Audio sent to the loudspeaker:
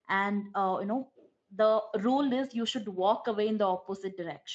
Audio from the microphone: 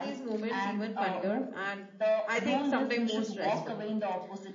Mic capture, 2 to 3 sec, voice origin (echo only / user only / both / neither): both